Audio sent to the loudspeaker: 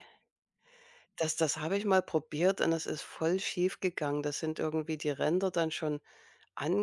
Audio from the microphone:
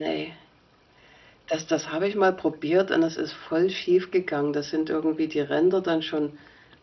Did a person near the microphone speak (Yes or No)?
No